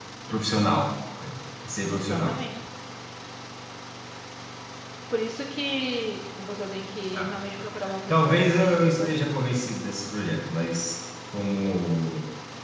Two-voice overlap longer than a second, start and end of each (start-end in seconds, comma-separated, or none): 8.1-9.3